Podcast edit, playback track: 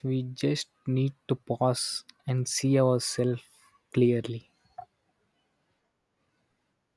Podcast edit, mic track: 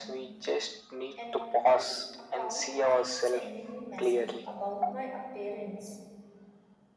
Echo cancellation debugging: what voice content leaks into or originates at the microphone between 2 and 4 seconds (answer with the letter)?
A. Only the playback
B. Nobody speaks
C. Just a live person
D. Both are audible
D